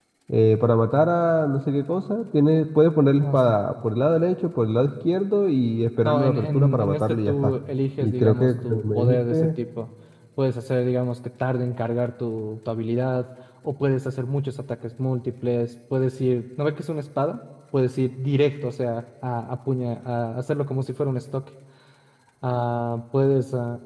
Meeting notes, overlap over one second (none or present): present